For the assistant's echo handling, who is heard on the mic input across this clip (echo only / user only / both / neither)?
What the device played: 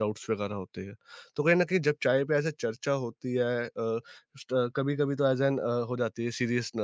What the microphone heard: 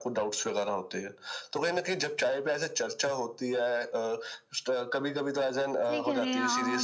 both